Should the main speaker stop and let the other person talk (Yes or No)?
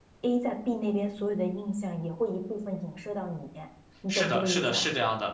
Yes